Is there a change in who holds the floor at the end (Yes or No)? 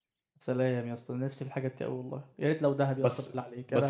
Yes